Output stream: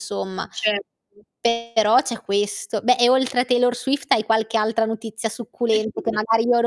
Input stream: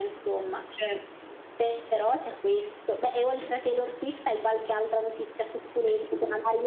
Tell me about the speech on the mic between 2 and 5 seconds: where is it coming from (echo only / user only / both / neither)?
echo only